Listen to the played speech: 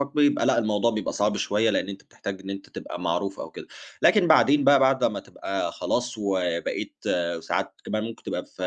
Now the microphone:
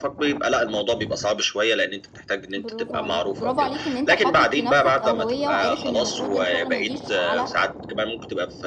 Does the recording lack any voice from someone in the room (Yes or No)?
No